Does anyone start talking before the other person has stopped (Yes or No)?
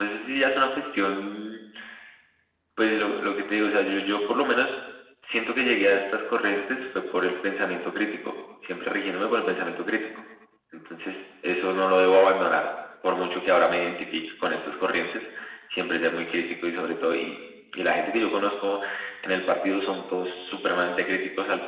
No